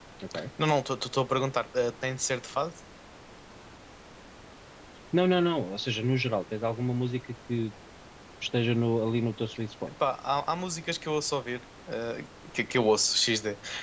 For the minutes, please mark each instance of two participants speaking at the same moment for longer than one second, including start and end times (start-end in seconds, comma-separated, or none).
none